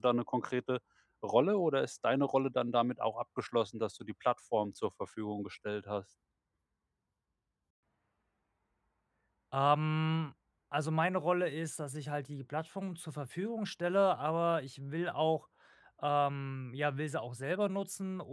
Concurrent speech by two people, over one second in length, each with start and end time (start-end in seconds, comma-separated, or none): none